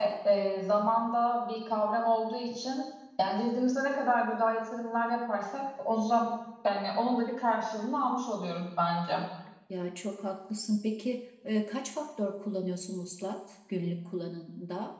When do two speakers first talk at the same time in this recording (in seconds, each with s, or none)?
none